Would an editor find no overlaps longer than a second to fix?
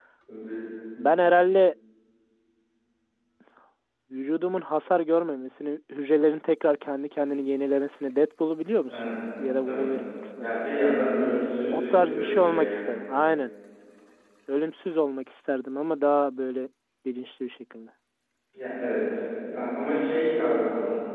No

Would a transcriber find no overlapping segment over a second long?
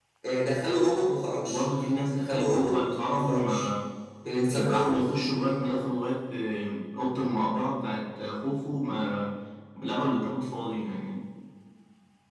No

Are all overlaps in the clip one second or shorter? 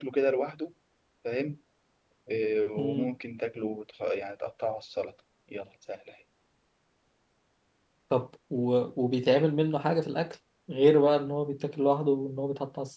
Yes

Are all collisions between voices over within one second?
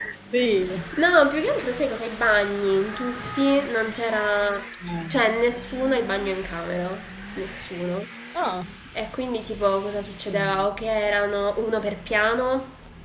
Yes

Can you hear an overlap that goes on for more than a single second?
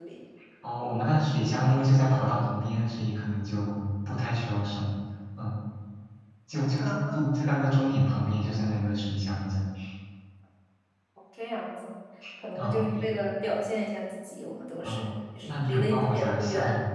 Yes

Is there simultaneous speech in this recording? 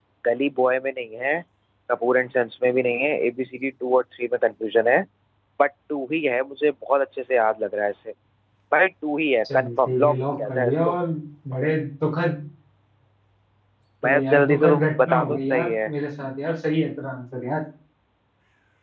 Yes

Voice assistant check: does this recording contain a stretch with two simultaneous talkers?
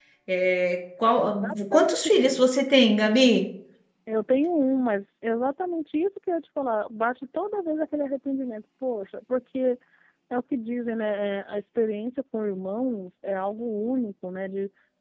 Yes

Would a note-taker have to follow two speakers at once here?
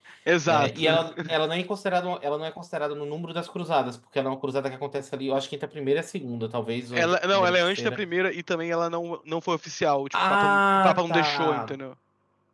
Yes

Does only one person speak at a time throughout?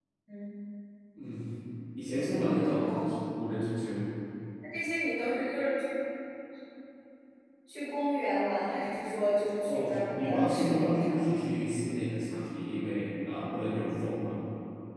No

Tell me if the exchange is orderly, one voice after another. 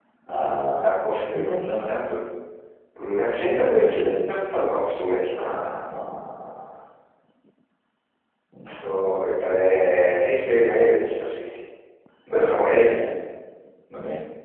No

